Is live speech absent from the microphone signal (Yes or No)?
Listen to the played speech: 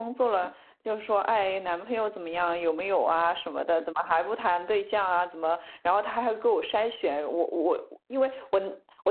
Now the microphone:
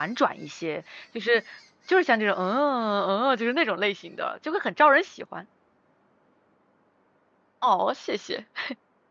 No